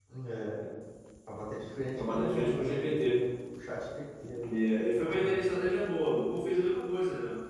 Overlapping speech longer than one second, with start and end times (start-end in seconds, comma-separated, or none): 1.9-3.2